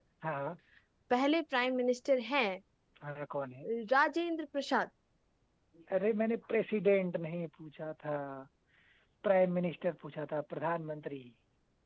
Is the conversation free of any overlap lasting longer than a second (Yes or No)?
Yes